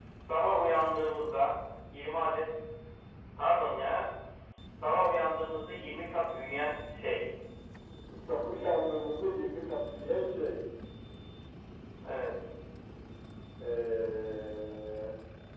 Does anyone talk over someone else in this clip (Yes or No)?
No